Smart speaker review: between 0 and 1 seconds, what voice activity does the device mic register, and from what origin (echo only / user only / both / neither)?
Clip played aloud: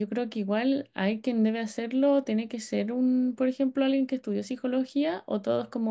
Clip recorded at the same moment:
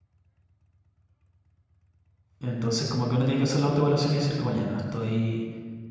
neither